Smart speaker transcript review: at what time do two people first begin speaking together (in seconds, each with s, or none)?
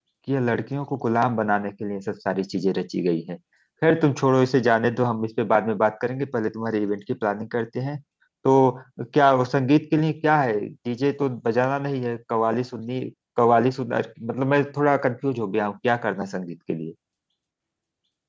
none